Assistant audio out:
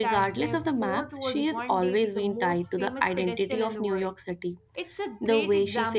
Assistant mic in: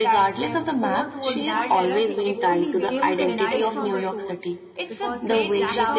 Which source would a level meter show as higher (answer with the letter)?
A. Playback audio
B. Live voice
A